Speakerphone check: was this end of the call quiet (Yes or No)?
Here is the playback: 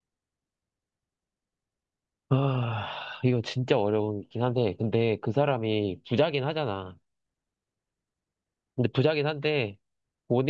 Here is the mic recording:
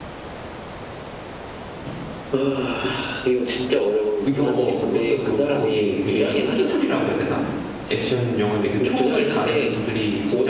No